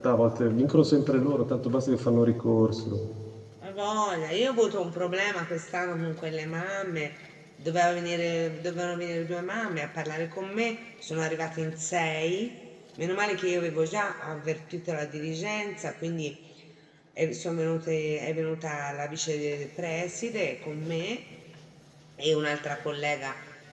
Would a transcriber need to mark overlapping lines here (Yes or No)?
No